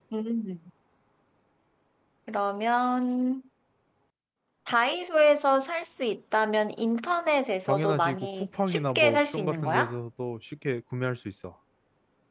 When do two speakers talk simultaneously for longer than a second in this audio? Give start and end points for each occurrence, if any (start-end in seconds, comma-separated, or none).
7.7-9.9